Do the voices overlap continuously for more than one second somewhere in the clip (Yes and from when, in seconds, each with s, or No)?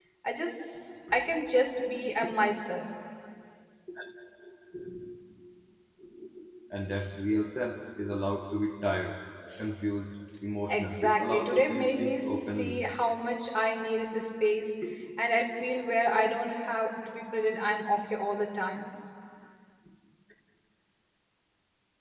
Yes, from 10.7 s